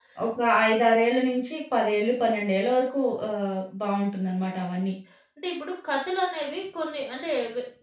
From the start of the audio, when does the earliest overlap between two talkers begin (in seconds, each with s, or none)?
none